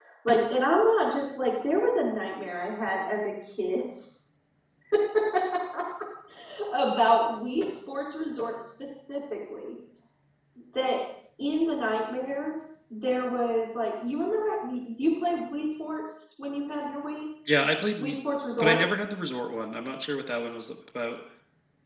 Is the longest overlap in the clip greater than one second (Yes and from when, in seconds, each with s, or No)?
No